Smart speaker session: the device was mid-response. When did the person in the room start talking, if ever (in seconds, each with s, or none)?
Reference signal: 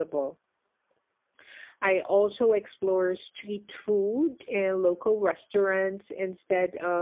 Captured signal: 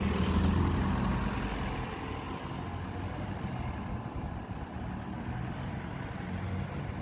none